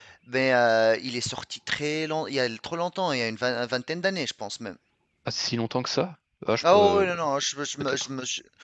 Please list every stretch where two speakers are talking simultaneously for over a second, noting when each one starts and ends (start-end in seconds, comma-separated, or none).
none